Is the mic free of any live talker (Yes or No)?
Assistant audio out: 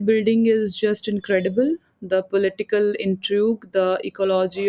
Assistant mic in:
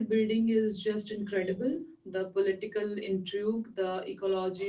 Yes